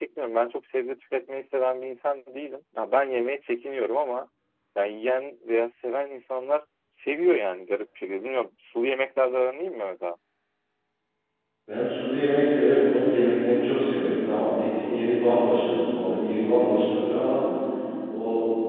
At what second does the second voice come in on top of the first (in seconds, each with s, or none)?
none